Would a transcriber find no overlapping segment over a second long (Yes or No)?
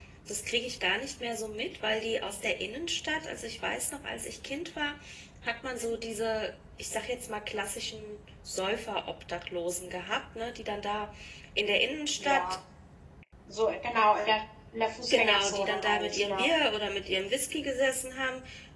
No